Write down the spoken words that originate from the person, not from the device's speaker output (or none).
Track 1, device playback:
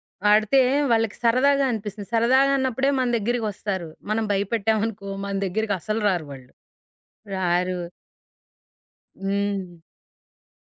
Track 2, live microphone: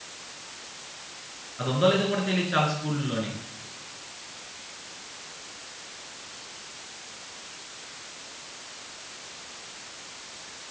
అదుందో లేదో కూడా తెలీదు చాలా స్కూల్‌ల్లోని.